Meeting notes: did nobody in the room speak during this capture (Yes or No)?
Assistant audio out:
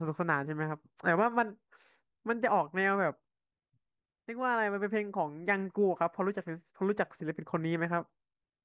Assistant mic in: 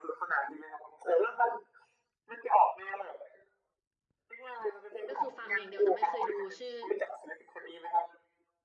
No